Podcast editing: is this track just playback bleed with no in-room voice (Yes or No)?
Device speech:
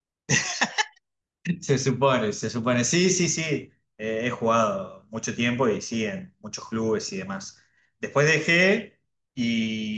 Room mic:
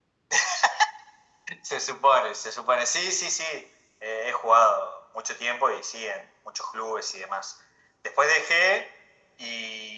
Yes